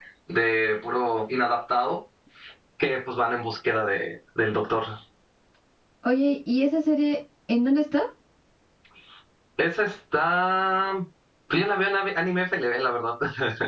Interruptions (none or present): none